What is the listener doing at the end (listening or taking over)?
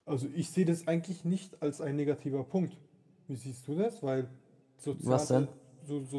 listening